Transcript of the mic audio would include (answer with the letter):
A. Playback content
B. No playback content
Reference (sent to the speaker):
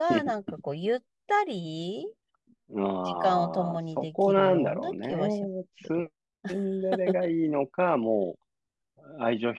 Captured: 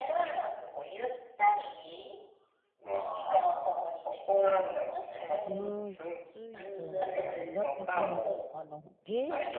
A